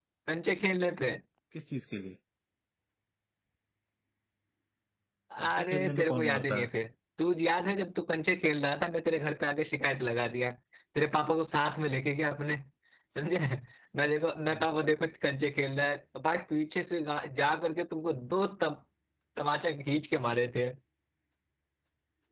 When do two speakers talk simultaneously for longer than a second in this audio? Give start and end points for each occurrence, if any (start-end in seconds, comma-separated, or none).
5.4-6.7